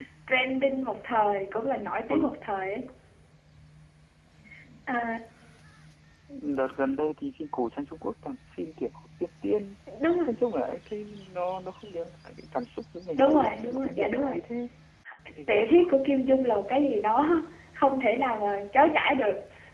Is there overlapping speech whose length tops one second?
Yes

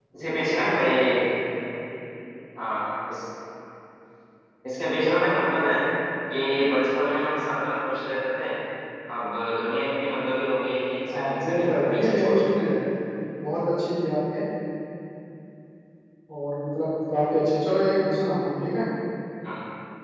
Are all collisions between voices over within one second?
No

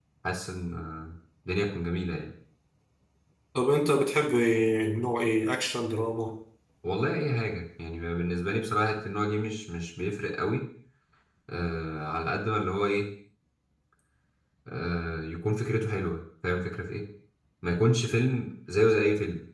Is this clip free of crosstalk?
Yes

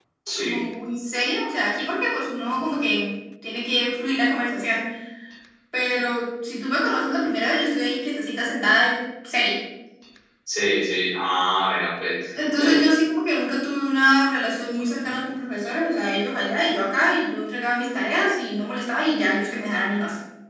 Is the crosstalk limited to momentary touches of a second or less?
Yes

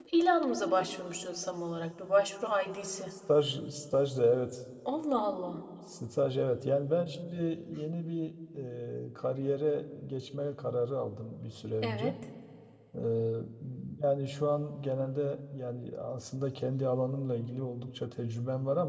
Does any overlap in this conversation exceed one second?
No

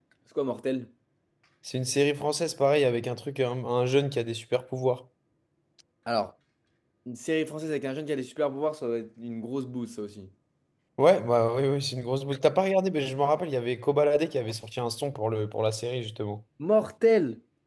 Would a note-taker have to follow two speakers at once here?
No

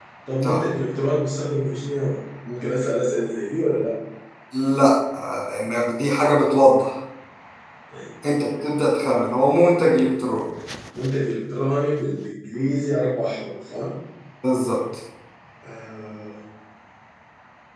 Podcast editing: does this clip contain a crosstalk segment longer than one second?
No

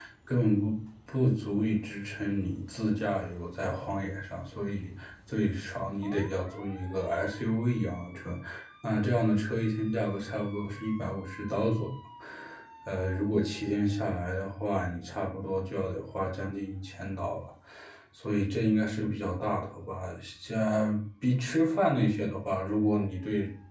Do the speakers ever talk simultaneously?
No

